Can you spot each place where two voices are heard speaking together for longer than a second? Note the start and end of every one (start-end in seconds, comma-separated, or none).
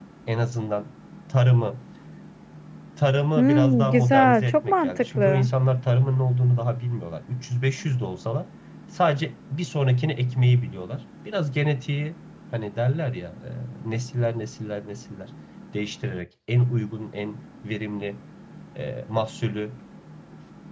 3.4-5.5